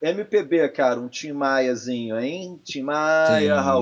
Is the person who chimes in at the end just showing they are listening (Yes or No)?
No